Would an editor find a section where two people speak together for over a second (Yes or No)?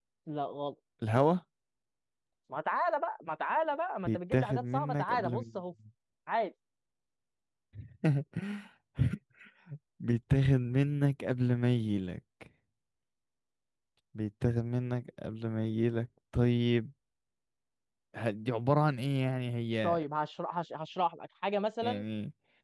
Yes